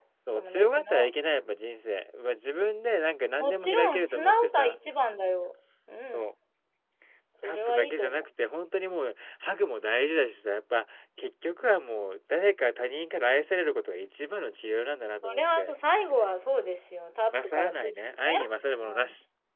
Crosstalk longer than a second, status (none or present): present